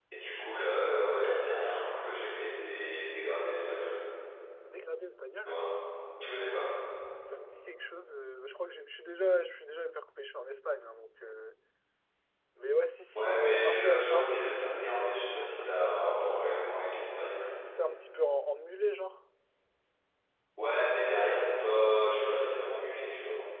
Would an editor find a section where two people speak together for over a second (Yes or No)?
Yes